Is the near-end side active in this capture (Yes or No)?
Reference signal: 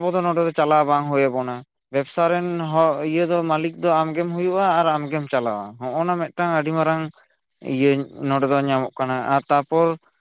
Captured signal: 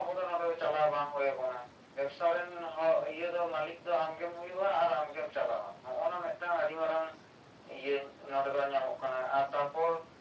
No